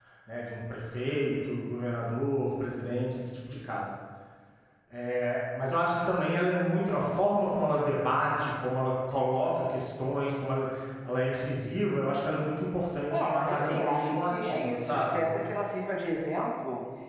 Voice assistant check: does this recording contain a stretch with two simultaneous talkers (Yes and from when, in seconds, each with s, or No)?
Yes, from 13.1 s